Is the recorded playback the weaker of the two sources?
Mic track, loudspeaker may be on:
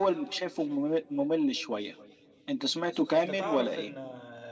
No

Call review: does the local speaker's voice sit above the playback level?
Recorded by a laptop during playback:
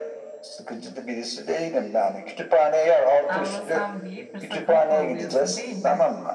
No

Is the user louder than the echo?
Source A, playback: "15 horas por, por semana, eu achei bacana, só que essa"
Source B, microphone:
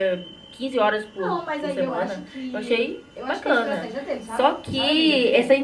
No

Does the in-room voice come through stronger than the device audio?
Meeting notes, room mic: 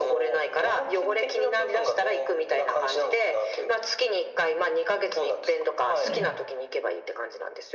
No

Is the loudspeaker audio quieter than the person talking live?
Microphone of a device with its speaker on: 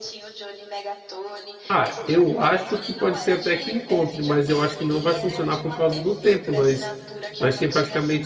Yes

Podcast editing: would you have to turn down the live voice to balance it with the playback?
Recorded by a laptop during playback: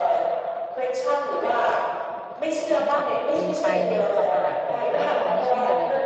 No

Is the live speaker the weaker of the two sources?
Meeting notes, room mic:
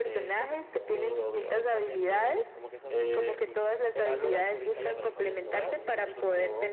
Yes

